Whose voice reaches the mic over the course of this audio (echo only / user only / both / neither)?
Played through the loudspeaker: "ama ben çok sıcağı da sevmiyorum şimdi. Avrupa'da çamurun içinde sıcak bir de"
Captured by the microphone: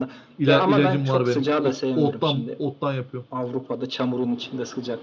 both